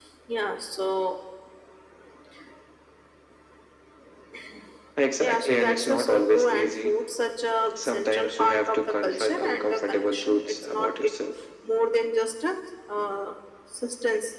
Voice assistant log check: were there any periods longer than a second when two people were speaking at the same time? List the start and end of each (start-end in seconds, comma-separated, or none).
5.2-6.9, 7.8-11.1